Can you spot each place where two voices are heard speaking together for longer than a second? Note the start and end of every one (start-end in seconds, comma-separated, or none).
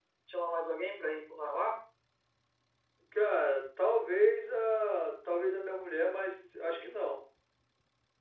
none